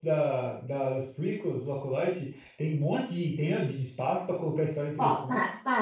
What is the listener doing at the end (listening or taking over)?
taking over